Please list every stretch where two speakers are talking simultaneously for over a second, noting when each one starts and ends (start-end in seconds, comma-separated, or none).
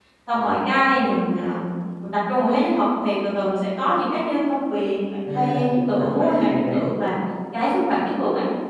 5.3-6.8